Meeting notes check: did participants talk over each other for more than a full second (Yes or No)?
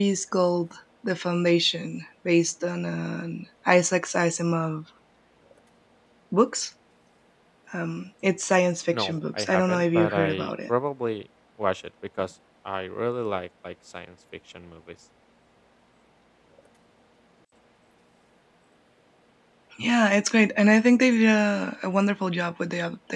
Yes